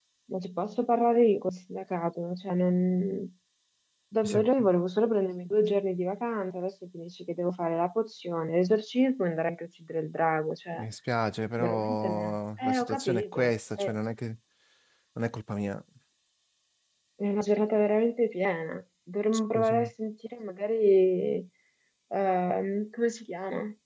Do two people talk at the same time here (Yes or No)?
Yes